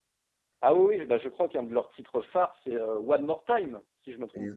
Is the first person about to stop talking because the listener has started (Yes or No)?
Yes